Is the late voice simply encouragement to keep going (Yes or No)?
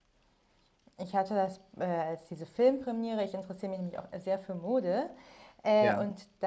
Yes